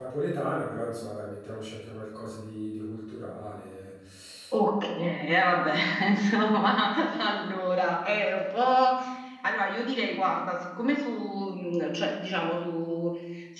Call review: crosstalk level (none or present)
none